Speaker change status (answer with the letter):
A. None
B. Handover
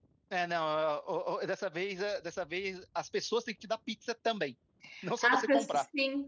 B